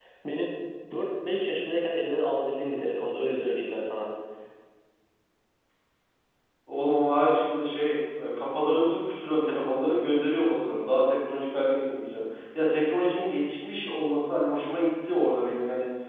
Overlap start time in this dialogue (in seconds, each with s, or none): none